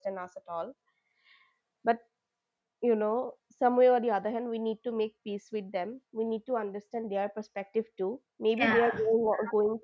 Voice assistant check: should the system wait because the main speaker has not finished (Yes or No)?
Yes